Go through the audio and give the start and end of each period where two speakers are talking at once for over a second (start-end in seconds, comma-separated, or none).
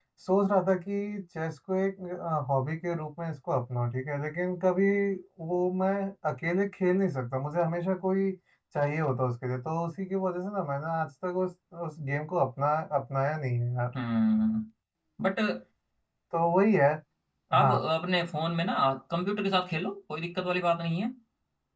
none